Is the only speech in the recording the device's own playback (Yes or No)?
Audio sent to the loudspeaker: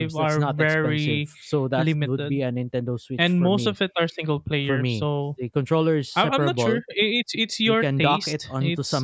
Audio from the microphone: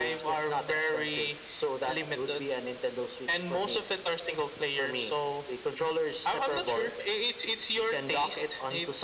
Yes